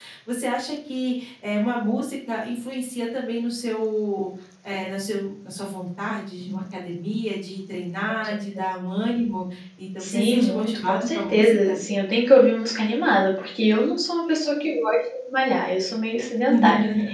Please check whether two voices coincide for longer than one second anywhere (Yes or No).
Yes